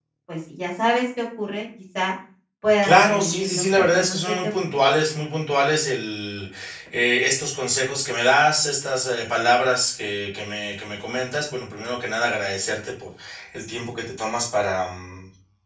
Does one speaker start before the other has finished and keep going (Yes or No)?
Yes